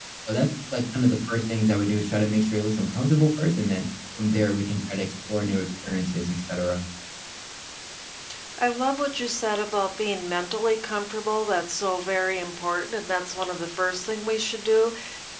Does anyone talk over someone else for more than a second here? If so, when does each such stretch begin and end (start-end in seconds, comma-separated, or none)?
none